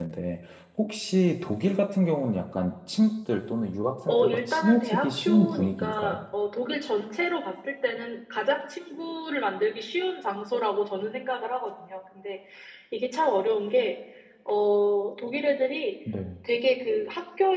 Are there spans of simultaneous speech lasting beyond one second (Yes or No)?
Yes